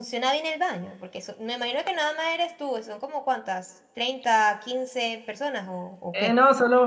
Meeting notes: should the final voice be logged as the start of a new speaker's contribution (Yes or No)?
Yes